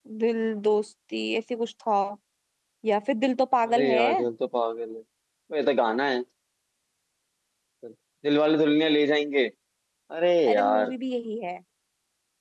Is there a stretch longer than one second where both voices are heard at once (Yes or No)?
No